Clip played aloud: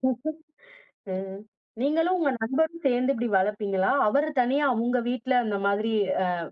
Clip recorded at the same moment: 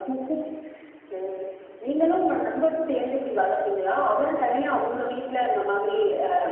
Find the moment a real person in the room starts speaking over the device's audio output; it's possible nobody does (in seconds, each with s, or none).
none